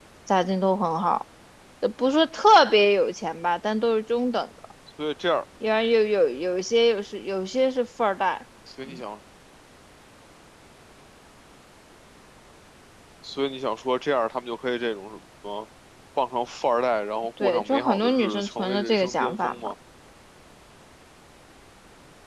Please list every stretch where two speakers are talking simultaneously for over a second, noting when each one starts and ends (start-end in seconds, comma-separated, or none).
17.4-19.6